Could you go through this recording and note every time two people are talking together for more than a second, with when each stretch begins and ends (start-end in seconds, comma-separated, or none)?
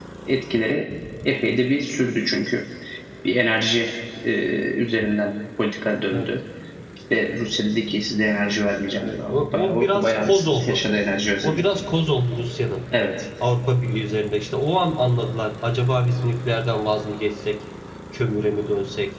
9.0-10.8